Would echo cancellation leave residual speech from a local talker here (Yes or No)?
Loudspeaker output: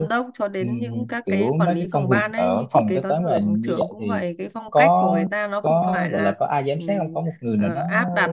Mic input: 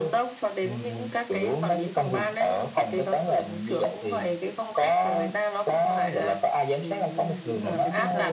Yes